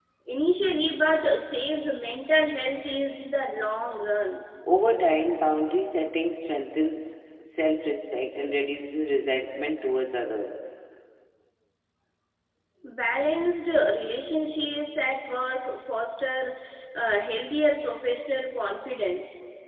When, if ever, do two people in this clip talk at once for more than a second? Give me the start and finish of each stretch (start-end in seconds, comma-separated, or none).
none